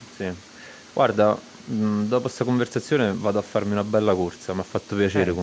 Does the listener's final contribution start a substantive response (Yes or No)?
Yes